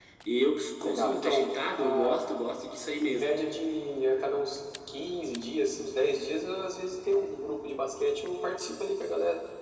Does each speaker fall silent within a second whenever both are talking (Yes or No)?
No